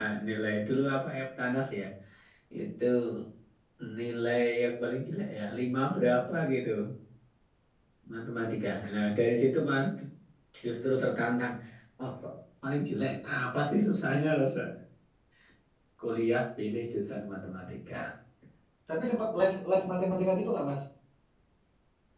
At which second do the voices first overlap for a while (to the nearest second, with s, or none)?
none